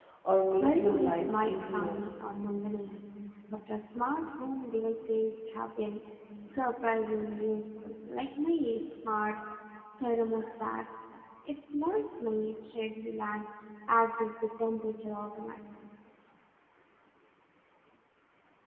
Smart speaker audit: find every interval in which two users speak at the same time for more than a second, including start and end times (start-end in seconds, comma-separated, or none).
0.6-2.0